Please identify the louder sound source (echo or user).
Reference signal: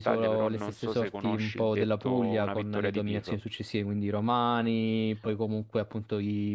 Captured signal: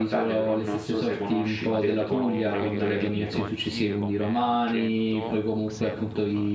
echo